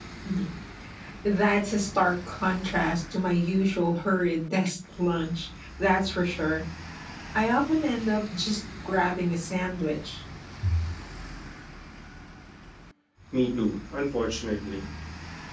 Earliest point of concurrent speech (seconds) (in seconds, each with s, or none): none